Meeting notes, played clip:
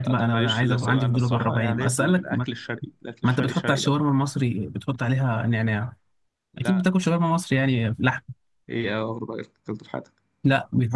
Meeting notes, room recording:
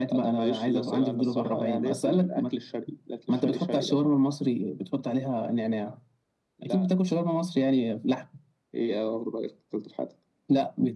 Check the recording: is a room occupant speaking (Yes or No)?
No